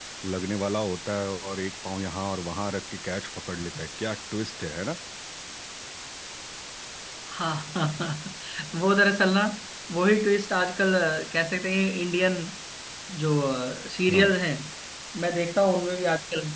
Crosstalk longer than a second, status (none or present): none